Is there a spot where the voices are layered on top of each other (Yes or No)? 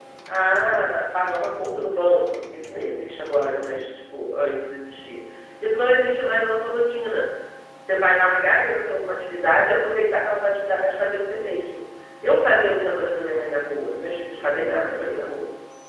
No